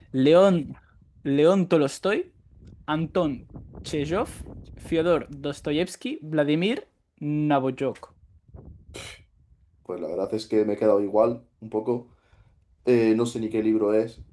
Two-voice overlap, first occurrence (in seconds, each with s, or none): none